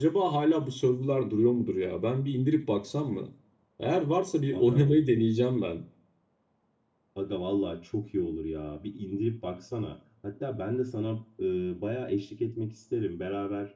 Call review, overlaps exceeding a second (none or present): none